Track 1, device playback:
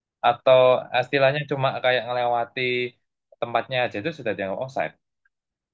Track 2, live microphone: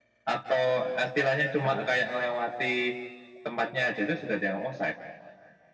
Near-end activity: present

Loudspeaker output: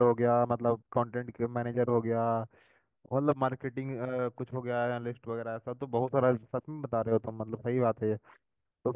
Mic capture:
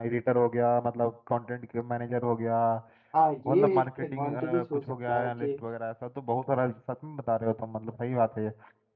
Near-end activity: present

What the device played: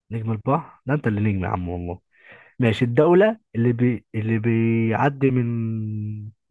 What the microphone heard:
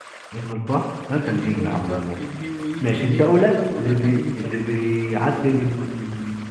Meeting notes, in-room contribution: present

